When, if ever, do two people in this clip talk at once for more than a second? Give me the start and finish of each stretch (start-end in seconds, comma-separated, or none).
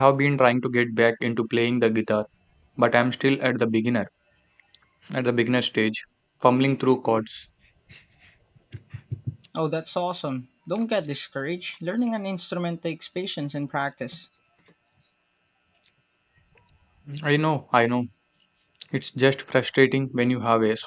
none